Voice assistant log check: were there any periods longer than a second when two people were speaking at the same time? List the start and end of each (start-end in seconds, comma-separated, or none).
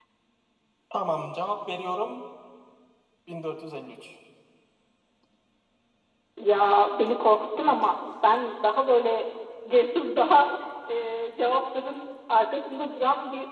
none